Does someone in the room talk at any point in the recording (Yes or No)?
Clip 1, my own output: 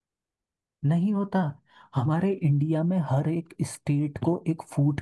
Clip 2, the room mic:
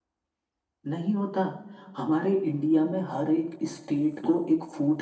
No